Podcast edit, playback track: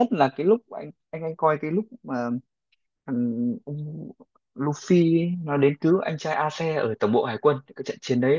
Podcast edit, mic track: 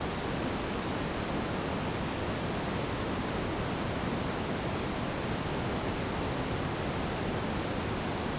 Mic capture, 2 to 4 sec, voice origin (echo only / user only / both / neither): neither